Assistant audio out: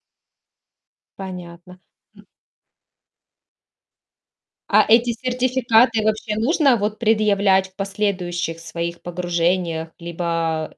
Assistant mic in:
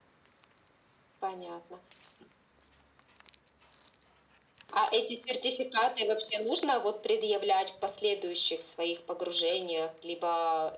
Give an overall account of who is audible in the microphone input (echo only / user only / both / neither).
echo only